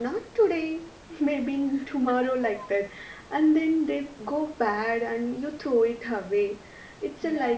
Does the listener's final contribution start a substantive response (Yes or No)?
No